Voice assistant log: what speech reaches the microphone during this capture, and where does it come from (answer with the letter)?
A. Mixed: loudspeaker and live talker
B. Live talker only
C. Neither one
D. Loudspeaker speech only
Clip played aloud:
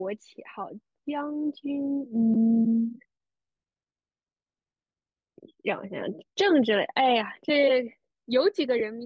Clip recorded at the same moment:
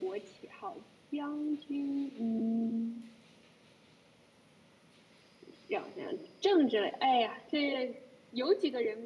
D